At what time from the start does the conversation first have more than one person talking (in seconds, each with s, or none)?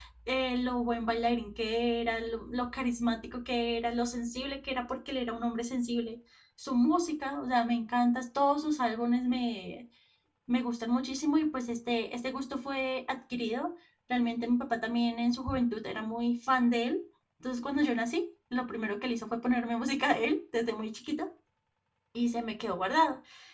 none